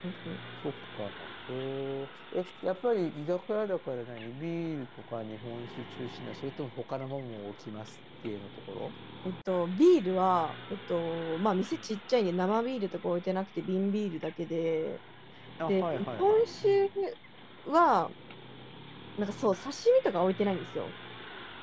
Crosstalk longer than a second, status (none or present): present